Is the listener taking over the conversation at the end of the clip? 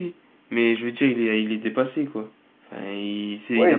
Yes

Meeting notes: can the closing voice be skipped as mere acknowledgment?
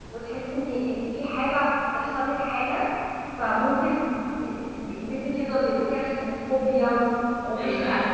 No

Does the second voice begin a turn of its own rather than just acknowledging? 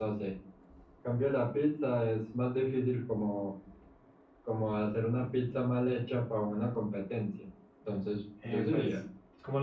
Yes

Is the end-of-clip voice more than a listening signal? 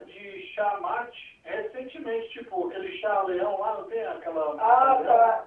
Yes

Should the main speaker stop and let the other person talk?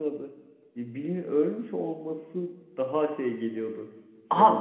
Yes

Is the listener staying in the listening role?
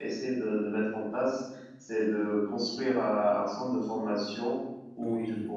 Yes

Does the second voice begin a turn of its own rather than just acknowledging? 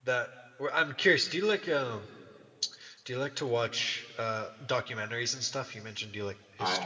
Yes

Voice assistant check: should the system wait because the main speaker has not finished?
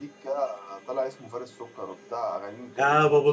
No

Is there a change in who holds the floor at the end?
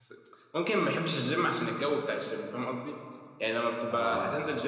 No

